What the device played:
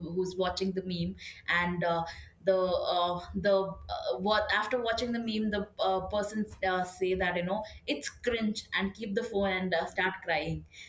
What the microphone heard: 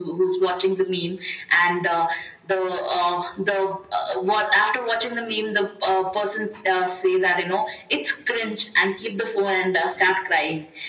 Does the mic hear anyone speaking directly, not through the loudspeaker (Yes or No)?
No